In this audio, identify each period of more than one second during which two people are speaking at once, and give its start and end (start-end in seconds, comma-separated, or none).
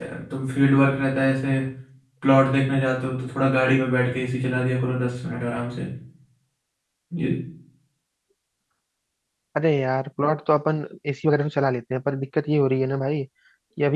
none